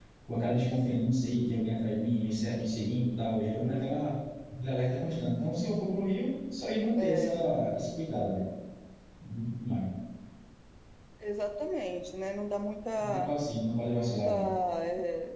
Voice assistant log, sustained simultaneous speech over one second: none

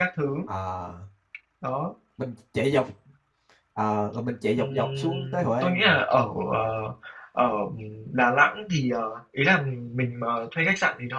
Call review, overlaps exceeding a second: present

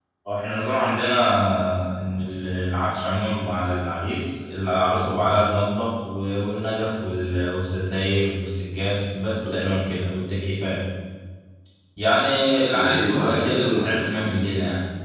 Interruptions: present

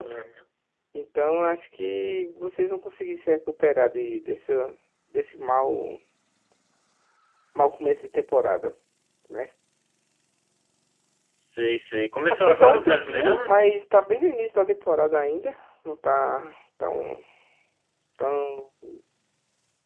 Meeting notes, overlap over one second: present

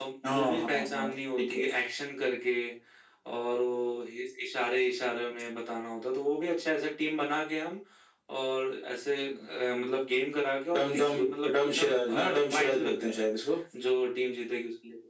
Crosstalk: present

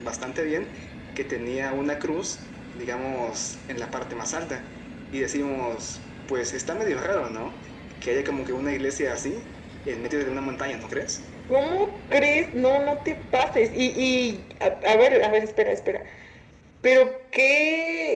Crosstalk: none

